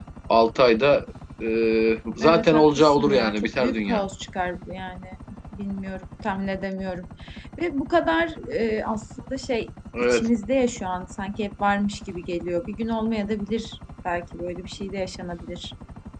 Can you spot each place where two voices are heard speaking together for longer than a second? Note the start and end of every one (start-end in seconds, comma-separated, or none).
2.2-4.0